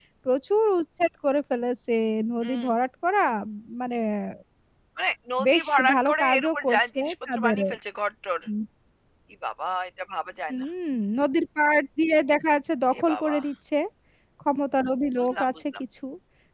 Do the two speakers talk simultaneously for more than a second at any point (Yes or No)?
Yes